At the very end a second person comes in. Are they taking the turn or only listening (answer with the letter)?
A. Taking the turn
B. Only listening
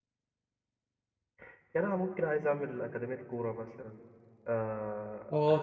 A